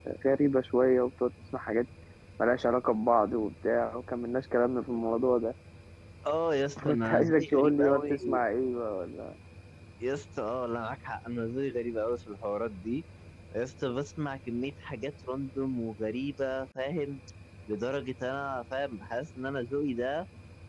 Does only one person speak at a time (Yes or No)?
No